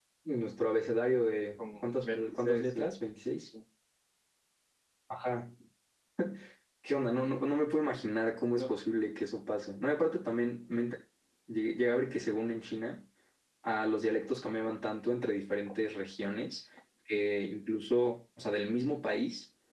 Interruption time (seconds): 2 s

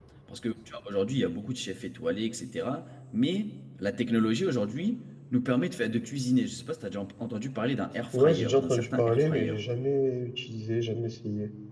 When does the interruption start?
8 s

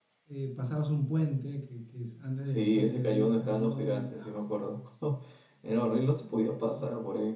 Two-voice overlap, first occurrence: 2 s

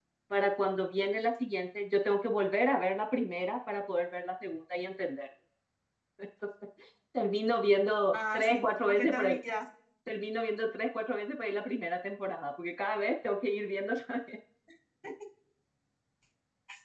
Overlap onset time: 8 s

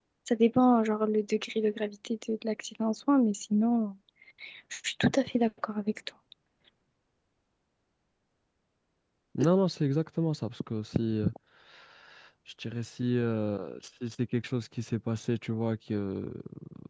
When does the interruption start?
none

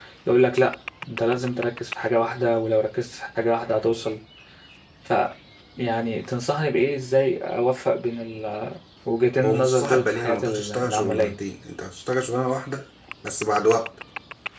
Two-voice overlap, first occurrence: 9 s

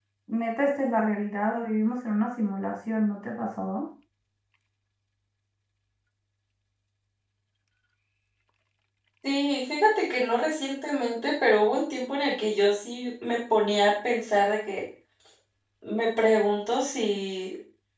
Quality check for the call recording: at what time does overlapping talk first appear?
none

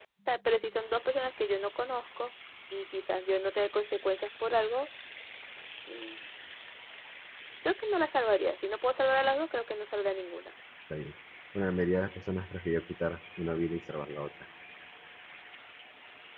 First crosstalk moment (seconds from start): none

